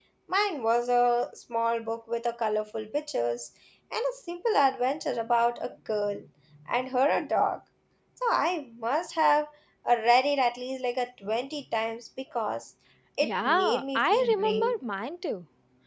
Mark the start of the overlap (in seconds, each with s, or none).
13.2 s